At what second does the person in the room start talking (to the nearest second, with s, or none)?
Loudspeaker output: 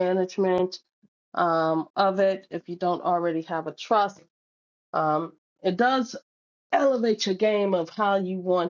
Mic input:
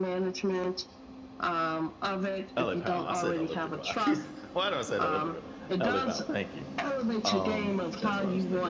3 s